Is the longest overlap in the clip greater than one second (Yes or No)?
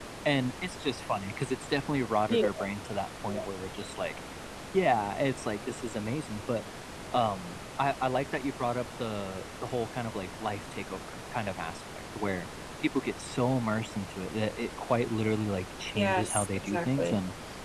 Yes